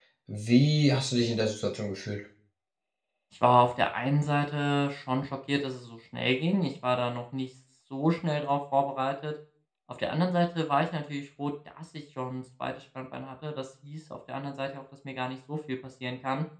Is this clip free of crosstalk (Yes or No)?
Yes